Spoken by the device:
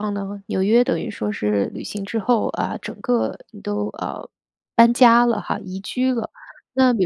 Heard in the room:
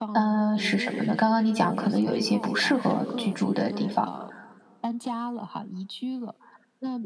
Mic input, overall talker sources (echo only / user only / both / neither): both